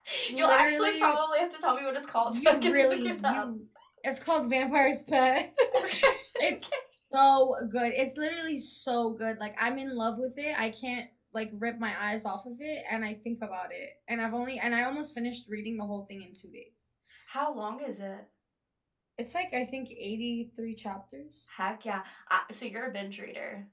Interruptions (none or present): present